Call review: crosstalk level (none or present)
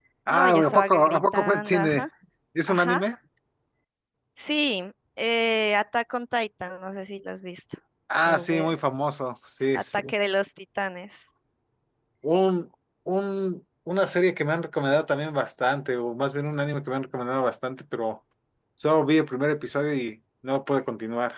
present